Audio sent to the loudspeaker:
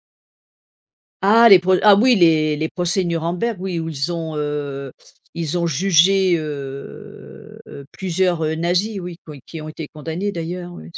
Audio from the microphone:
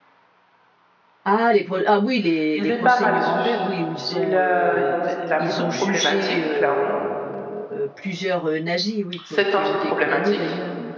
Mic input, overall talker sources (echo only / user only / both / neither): both